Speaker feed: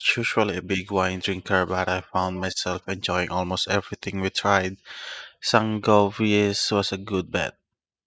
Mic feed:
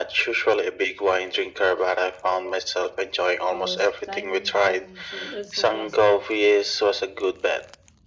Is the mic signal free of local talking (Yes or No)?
No